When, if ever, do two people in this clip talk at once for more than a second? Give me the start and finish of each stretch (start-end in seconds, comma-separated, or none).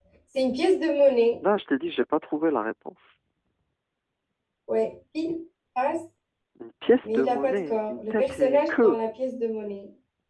7.0-9.0